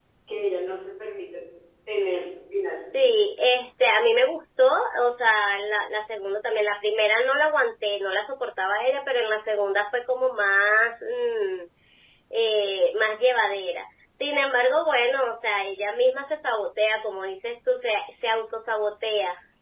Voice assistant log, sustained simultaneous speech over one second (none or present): none